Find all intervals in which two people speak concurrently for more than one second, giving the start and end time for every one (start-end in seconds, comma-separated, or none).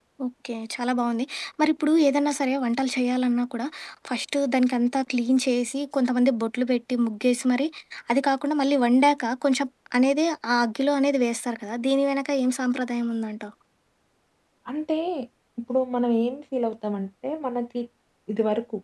none